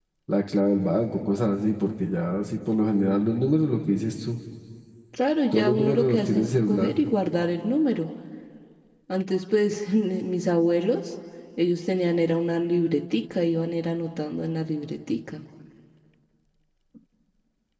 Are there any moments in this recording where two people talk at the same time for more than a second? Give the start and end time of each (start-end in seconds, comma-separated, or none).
5.5-6.9